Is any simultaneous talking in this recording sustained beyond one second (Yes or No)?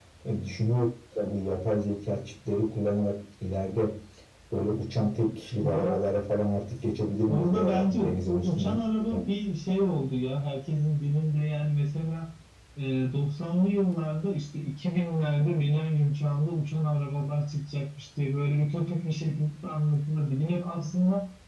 Yes